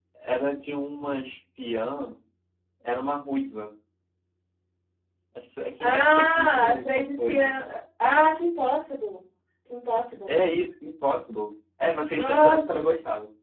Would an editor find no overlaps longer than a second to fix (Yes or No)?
No